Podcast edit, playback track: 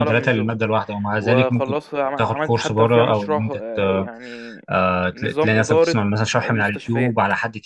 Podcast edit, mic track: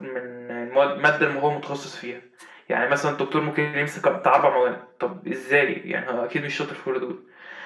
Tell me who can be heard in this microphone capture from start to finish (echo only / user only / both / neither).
user only